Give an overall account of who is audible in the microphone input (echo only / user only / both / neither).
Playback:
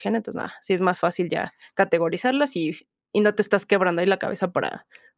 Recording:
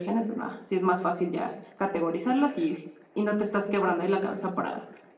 echo only